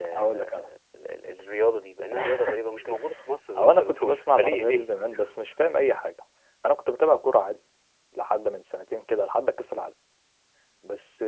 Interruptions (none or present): present